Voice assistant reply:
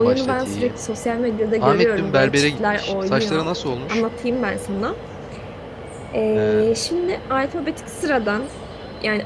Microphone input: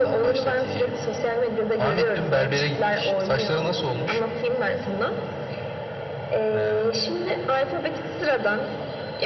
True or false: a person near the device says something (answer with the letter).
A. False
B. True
A